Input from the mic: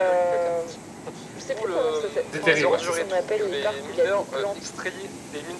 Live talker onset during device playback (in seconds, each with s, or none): 2.2 s